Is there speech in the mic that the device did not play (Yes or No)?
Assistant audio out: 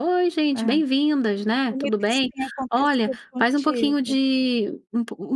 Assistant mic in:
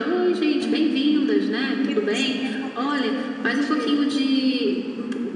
No